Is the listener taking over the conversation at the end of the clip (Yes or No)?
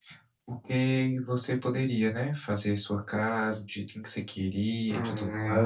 Yes